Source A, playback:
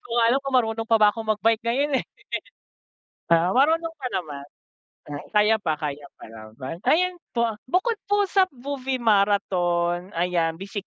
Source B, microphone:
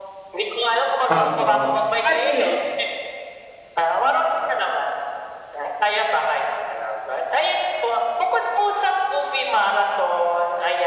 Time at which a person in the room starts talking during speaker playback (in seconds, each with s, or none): 1.1 s